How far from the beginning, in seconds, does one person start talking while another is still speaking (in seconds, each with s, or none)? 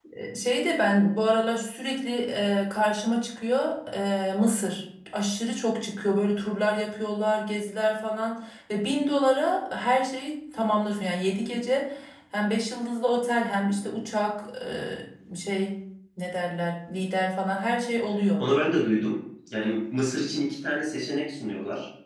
none